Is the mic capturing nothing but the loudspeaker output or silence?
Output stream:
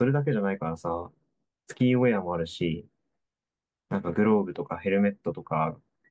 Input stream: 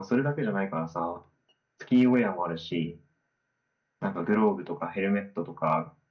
Yes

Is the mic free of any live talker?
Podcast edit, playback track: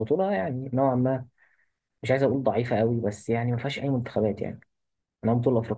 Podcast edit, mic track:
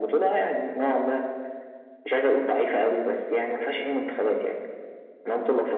Yes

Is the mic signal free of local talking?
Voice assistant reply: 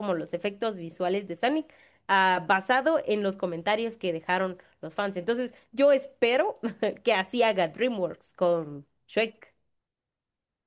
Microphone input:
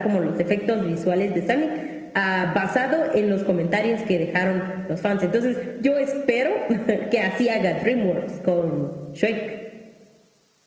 Yes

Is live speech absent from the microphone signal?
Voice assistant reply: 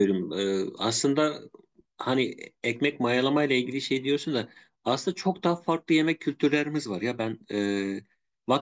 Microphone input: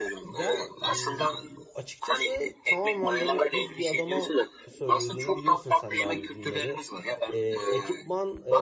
No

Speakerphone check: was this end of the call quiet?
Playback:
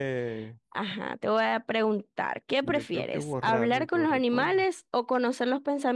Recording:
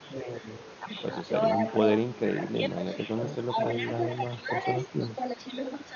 No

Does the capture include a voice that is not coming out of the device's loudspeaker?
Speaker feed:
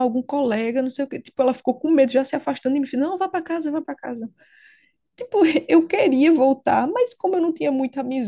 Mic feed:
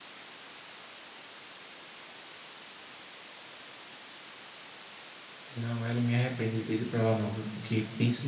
Yes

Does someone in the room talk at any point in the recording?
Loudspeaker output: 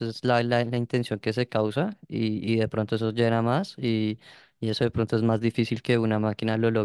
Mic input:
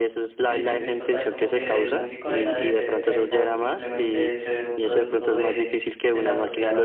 Yes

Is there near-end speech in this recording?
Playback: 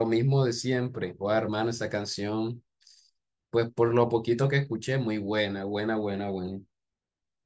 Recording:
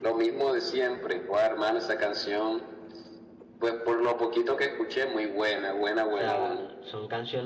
Yes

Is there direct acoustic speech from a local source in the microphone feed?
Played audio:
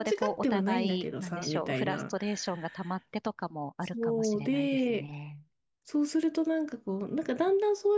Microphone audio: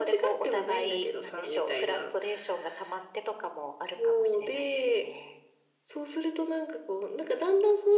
No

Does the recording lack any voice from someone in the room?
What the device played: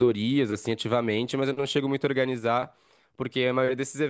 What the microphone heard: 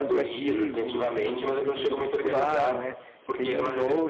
No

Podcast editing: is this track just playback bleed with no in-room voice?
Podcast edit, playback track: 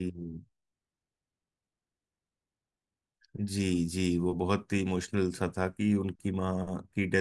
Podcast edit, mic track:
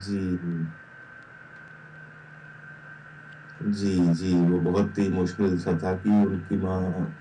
Yes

